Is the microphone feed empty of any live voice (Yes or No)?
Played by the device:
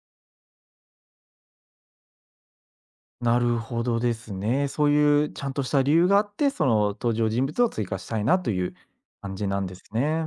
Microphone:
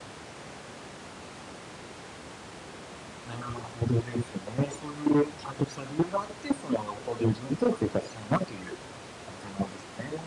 Yes